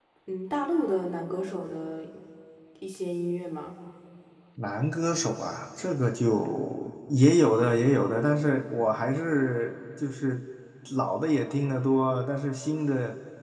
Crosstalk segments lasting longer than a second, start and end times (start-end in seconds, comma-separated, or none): none